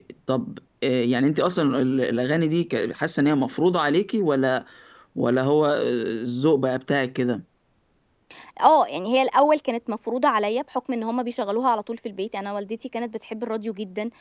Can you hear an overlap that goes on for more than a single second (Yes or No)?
No